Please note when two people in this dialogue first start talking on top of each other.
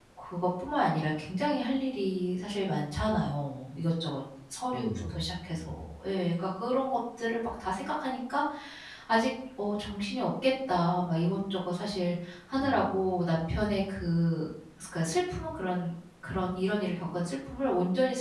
4.7 s

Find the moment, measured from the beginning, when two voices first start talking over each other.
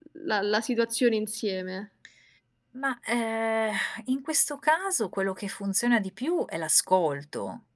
none

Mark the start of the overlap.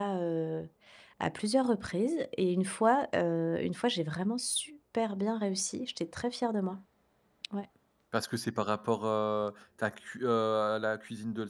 none

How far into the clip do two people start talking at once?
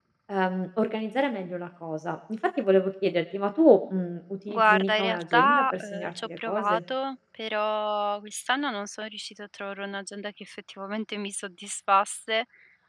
4.5 s

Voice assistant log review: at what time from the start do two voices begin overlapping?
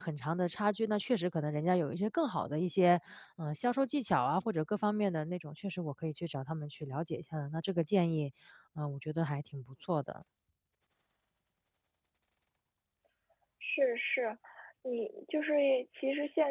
none

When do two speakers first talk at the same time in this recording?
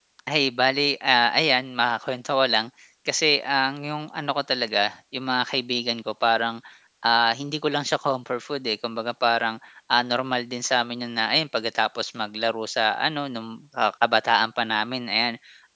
none

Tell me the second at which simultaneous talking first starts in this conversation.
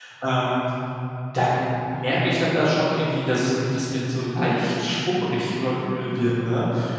none

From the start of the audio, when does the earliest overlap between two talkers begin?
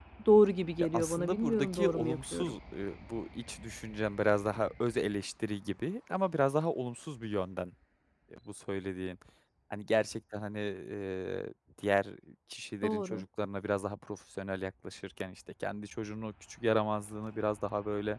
0.8 s

